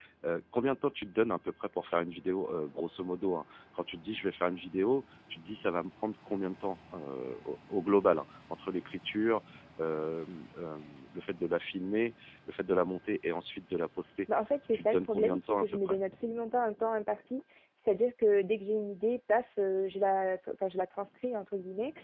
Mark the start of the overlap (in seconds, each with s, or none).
14.7 s